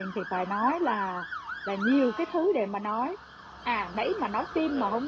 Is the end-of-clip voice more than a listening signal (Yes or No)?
No